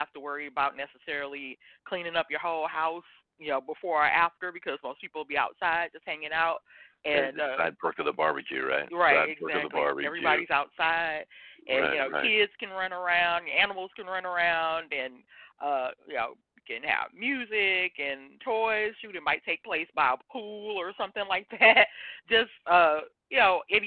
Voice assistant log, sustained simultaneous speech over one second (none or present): present